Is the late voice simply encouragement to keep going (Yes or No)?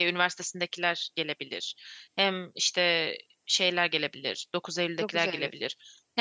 Yes